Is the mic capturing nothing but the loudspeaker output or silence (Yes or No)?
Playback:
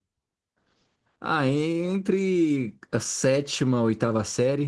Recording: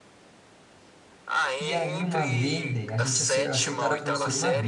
No